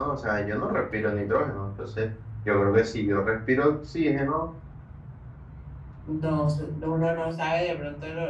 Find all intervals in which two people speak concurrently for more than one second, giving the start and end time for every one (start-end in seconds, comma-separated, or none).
none